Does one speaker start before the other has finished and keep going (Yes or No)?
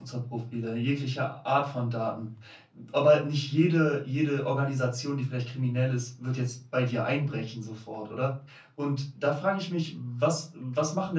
No